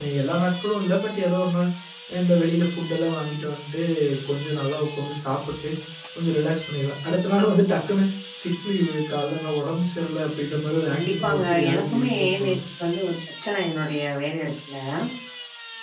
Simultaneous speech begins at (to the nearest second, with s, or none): 11 s